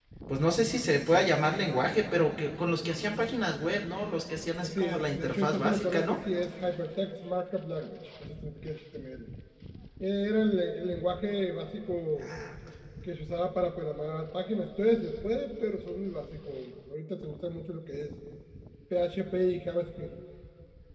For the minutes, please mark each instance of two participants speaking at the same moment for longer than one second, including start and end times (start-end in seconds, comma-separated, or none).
4.6-6.2